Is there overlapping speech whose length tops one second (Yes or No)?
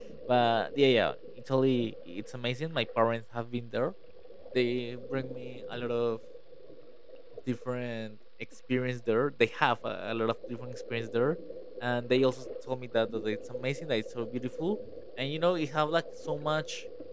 No